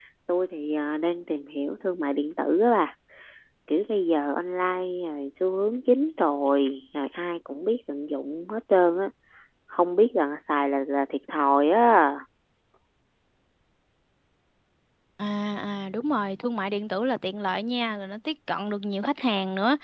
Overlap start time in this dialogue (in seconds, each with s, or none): none